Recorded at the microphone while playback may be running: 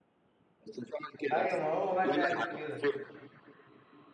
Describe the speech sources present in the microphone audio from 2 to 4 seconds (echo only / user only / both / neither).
both